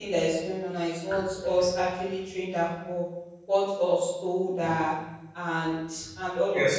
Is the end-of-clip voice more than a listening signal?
Yes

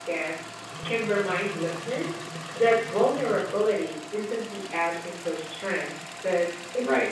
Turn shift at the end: Yes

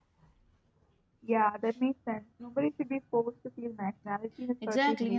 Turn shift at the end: Yes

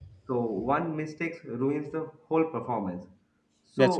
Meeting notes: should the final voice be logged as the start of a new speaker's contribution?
No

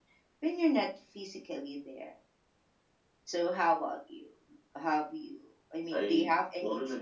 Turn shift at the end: Yes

